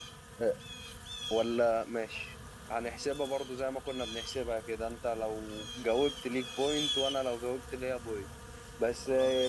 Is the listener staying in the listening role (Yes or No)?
Yes